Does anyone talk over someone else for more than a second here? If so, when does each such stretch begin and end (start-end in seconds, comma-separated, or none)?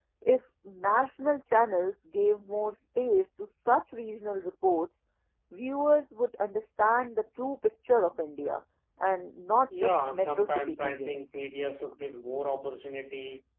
9.8-11.2